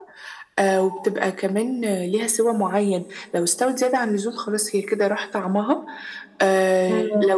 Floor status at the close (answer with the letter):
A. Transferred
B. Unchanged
B